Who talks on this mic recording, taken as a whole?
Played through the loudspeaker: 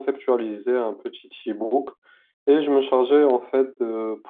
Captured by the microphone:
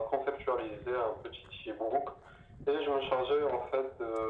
echo only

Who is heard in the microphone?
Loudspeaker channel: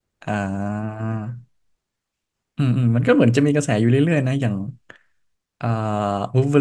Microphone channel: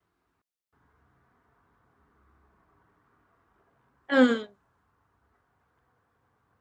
user only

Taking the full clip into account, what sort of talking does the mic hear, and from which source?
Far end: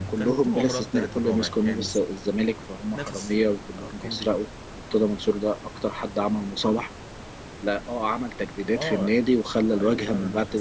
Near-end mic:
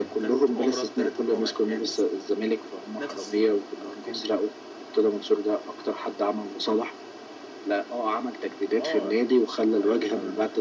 echo only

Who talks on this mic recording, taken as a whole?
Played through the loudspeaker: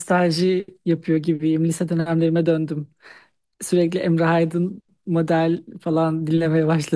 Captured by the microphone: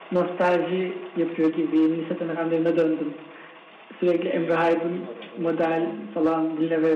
both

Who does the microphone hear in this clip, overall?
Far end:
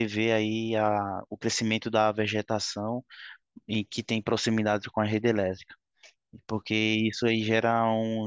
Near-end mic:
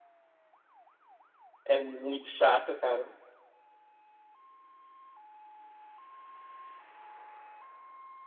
user only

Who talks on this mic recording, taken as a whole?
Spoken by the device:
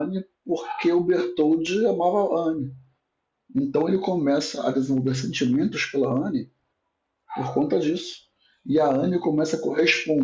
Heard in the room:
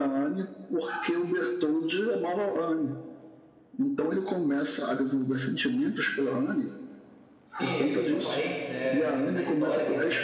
both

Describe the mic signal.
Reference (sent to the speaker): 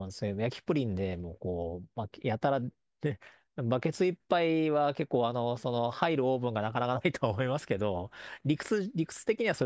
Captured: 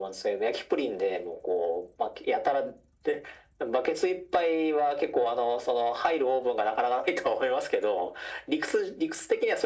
echo only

